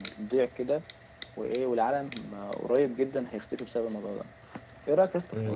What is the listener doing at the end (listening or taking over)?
listening